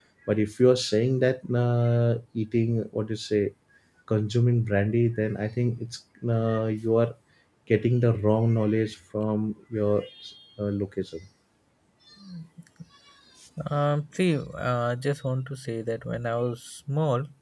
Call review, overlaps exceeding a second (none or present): none